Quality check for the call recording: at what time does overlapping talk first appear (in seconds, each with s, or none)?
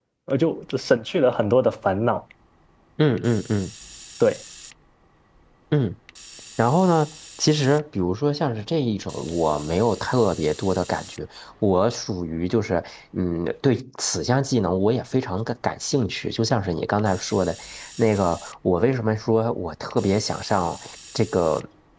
none